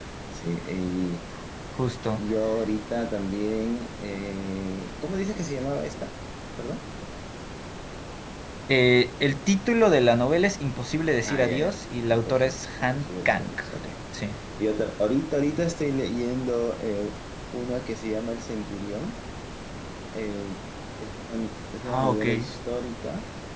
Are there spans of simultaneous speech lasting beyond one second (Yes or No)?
Yes